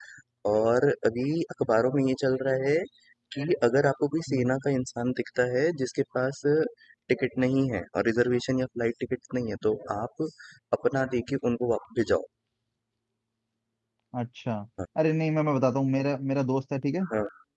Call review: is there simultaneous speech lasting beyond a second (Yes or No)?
No